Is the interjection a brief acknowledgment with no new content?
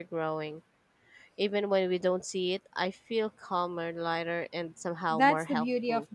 No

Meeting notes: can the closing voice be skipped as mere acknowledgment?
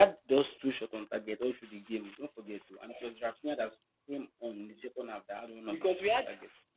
No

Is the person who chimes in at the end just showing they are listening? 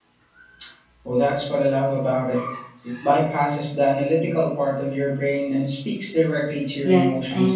No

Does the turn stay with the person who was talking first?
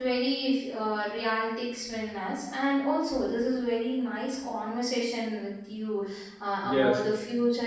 Yes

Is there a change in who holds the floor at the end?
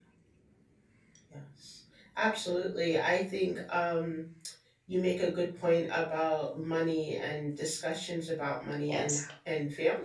No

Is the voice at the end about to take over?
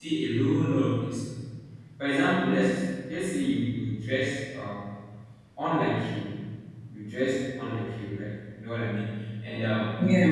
No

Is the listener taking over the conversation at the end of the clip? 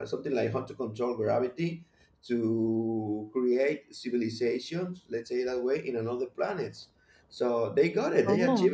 No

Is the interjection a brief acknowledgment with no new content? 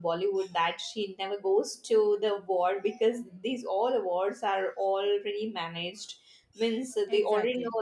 Yes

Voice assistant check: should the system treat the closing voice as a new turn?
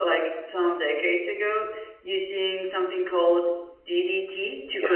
Yes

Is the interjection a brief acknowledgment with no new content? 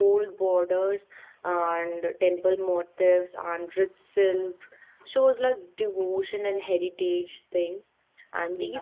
Yes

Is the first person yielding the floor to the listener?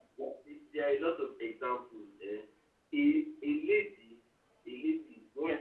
No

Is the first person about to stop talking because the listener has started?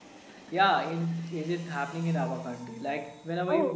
Yes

